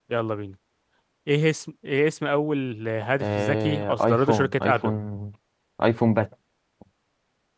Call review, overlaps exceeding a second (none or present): present